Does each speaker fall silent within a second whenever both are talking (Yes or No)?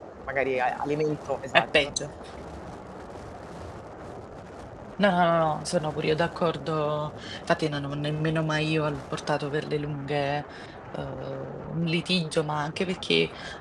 Yes